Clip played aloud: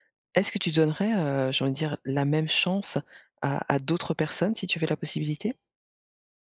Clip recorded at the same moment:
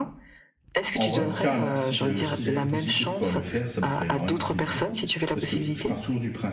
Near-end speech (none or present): present